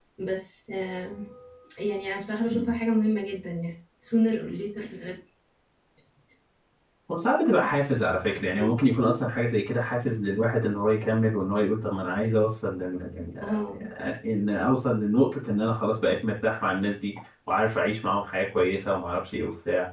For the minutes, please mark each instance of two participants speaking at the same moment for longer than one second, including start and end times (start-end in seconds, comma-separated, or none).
none